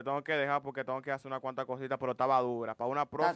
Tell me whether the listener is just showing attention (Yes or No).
No